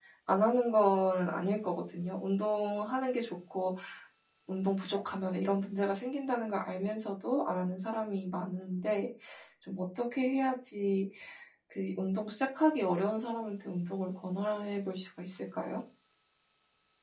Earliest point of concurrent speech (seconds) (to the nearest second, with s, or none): none